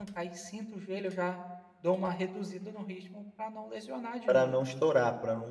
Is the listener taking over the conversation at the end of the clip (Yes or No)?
Yes